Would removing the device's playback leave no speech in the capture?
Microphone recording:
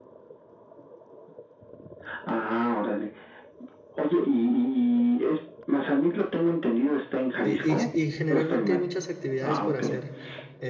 No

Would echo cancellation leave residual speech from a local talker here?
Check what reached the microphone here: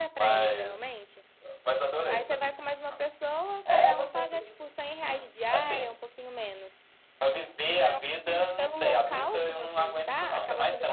Yes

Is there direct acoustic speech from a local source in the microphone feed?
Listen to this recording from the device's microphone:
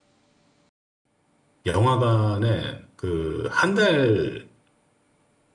Yes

